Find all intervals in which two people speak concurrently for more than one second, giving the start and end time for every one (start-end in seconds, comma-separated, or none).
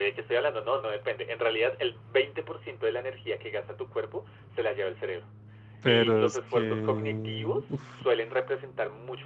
5.9-7.8